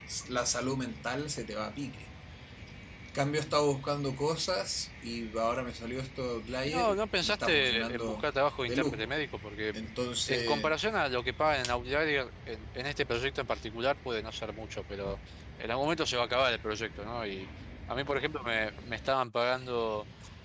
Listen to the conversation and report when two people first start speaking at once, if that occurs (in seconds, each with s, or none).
6.7 s